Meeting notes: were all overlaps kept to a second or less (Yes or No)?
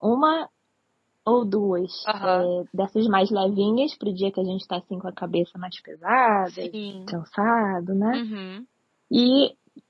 Yes